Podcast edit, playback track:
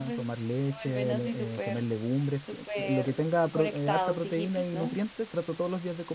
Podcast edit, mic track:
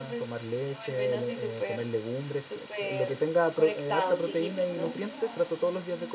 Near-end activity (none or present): present